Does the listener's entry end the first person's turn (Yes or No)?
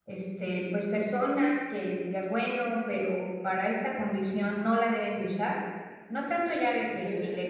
No